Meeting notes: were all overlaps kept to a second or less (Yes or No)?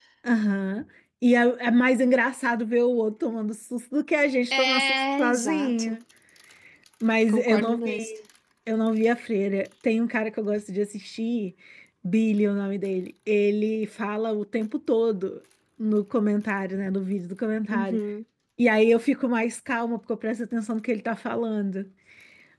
No